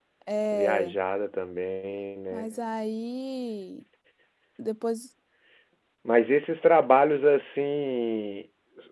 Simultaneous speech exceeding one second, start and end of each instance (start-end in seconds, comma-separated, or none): none